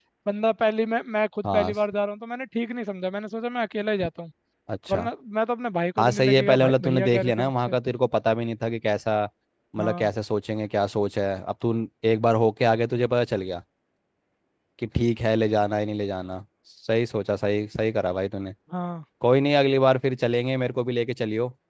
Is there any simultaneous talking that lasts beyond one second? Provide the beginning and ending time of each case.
6.0-7.7

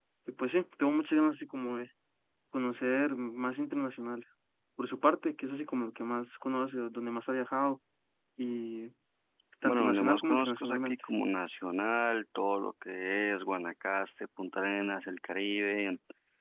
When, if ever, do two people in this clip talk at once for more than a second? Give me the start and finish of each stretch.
9.7-11.0

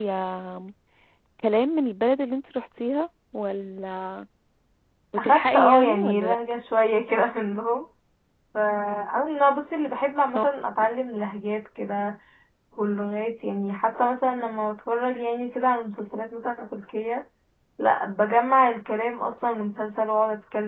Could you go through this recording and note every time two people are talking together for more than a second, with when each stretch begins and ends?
5.2-6.6

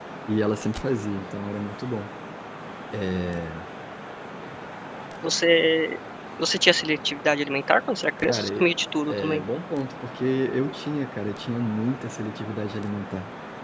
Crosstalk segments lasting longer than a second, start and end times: none

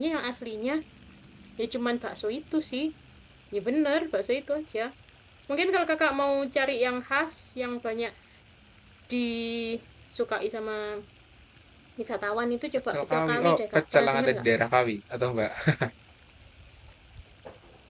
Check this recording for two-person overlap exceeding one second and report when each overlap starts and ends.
12.9-14.4

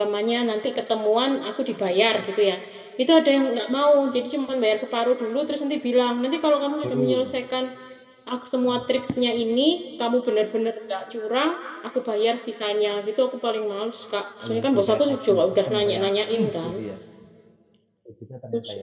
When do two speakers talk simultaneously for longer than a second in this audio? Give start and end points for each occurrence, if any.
14.4-16.7

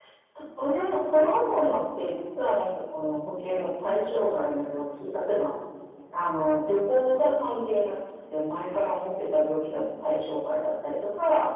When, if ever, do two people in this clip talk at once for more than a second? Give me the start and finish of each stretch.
none

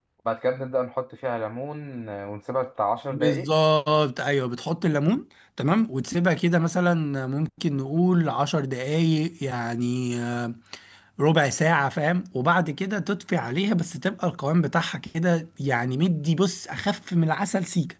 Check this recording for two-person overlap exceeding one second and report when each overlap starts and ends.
none

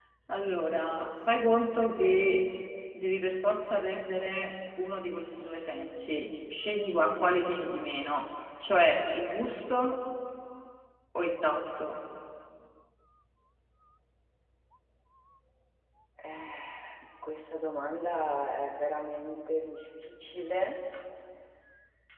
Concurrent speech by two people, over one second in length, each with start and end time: none

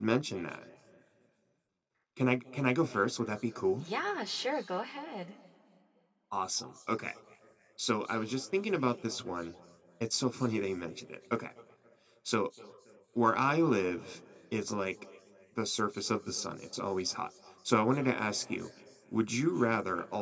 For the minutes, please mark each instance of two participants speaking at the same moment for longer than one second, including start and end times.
none

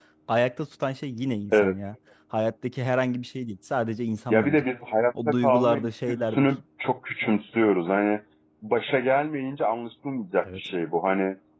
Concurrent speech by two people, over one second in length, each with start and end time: 5.2-6.5

